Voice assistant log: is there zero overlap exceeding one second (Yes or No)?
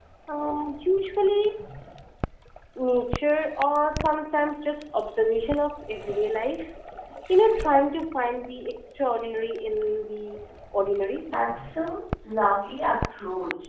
Yes